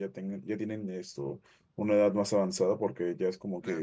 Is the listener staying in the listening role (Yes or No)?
Yes